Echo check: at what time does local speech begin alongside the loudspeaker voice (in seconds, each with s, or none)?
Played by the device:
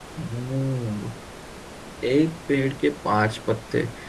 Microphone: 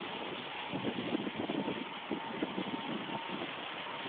none